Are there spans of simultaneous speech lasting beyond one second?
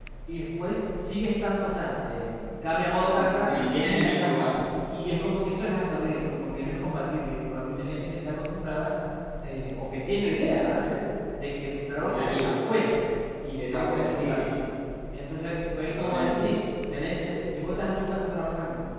Yes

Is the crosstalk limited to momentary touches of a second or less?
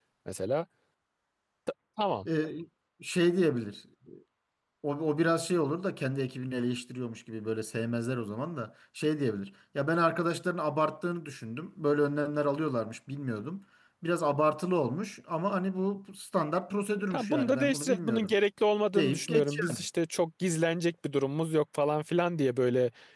No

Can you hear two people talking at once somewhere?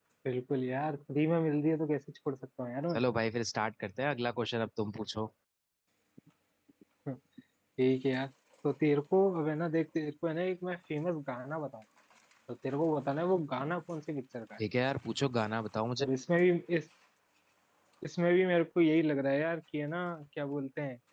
No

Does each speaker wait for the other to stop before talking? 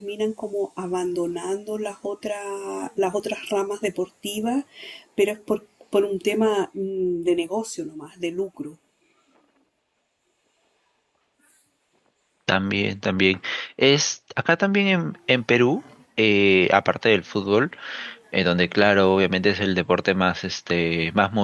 Yes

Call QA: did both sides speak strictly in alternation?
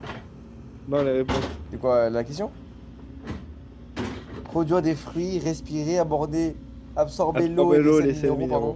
No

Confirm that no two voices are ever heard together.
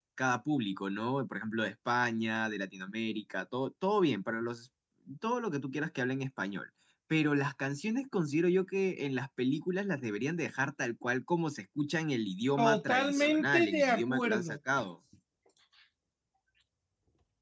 No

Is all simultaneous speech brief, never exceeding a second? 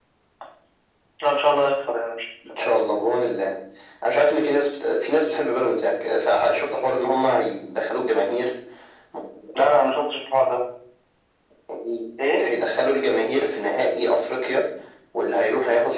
Yes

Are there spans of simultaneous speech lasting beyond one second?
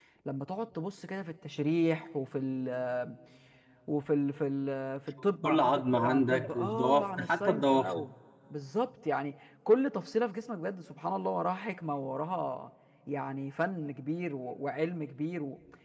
Yes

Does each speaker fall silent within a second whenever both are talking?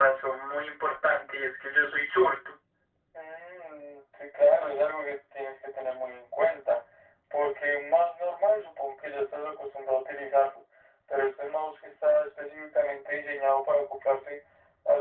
Yes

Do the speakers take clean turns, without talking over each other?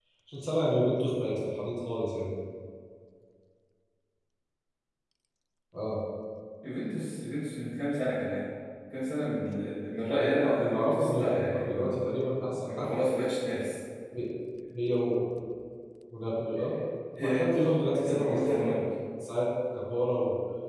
No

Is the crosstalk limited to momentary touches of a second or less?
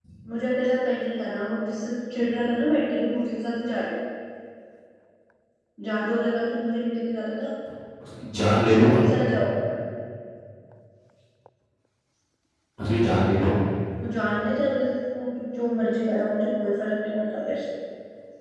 Yes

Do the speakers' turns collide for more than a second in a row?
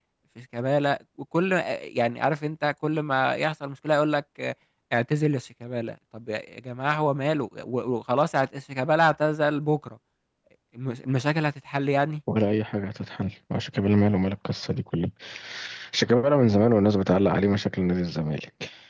No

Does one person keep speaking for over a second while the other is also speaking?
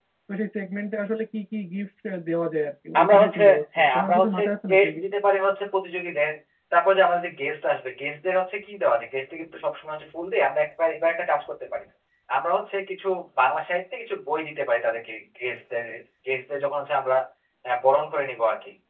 Yes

